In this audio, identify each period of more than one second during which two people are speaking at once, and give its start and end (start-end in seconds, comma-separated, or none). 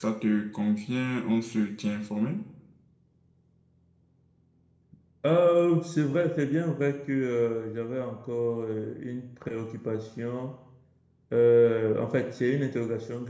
none